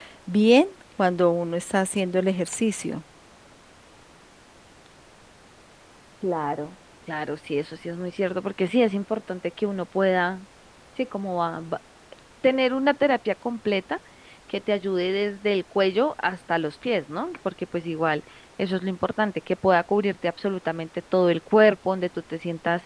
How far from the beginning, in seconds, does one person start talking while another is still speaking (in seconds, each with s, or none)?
none